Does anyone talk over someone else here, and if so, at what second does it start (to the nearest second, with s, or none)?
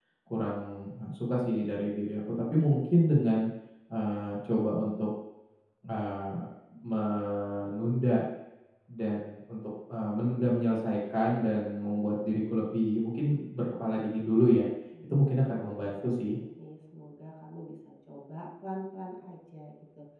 15 s